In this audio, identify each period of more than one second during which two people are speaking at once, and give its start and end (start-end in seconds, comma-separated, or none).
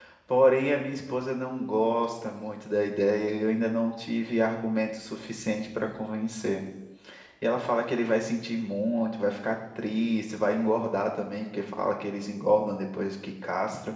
none